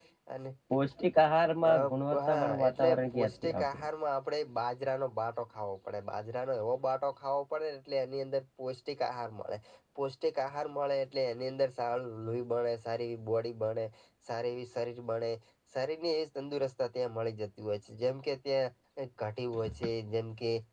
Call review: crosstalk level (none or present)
present